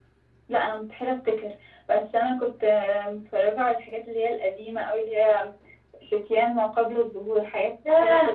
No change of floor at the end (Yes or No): No